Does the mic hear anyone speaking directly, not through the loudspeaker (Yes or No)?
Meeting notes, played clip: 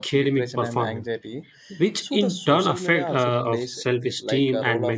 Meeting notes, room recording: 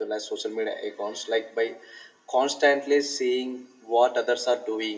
Yes